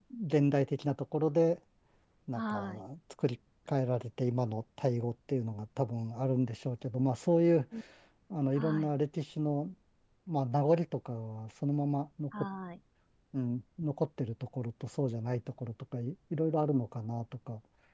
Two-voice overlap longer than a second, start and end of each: none

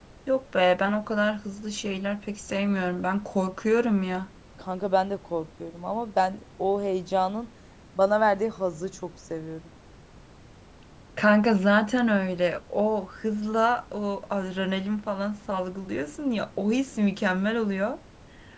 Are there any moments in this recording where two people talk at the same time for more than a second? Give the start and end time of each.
none

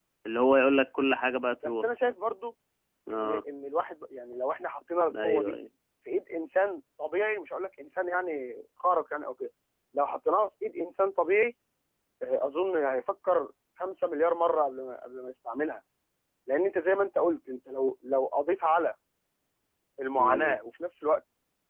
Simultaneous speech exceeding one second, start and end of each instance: none

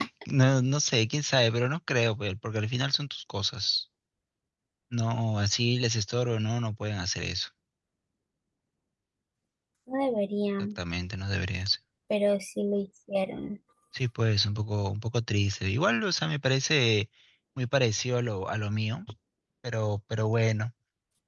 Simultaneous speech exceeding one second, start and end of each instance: none

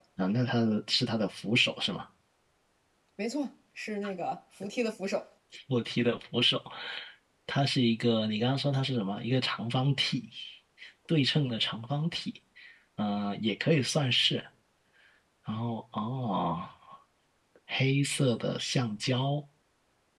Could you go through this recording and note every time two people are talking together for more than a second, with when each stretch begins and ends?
none

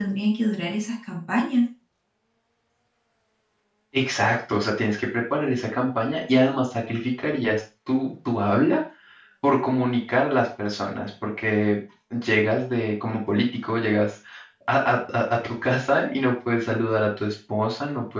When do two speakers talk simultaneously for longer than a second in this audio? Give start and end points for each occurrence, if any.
none

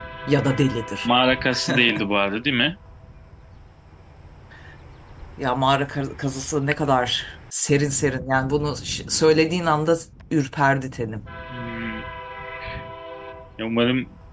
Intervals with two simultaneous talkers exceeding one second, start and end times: none

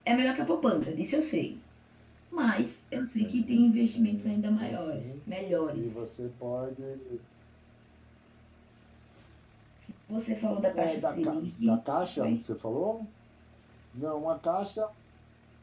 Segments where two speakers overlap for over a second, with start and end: 3.2-5.3, 10.7-12.4

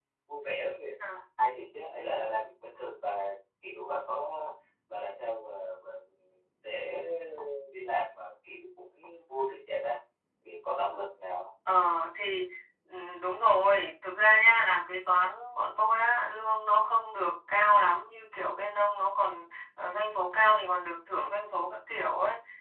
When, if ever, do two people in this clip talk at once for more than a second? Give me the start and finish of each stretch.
none

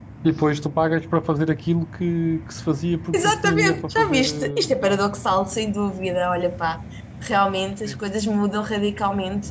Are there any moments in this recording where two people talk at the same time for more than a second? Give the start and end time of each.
3.1-5.0

